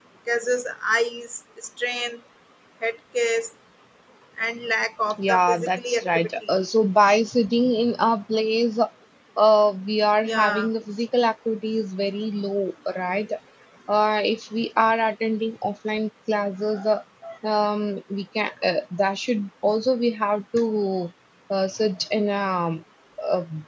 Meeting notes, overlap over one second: present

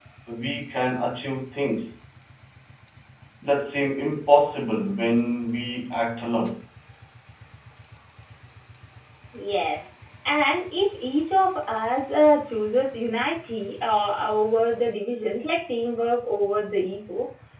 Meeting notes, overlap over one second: none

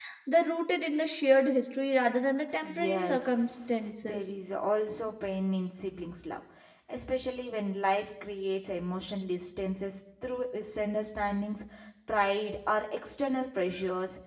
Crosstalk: present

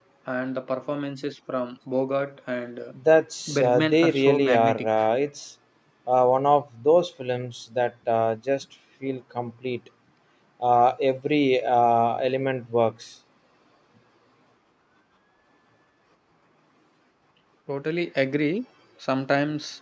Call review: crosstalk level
present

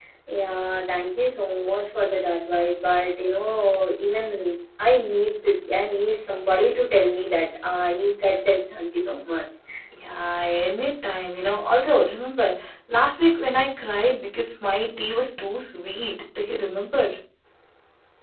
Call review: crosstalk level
none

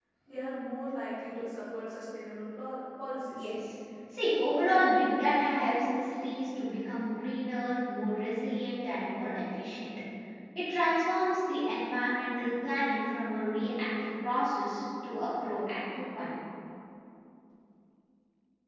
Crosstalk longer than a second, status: none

